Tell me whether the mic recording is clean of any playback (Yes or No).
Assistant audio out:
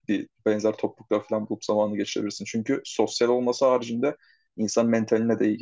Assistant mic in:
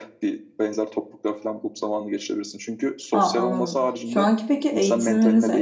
No